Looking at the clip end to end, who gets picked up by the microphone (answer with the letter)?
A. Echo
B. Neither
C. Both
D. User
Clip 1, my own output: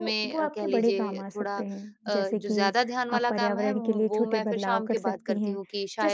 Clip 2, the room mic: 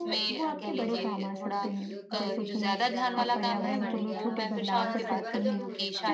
C